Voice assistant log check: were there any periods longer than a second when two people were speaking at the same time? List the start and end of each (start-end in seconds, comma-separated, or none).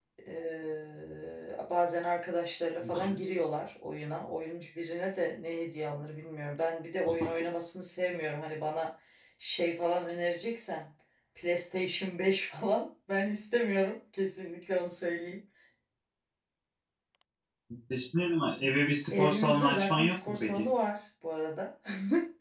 19.1-20.6